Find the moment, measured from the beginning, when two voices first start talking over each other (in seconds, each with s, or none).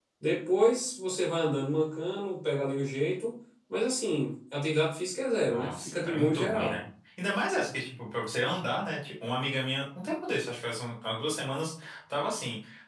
5.5 s